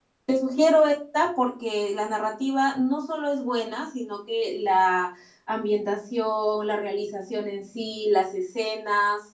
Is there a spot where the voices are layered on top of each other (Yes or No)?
No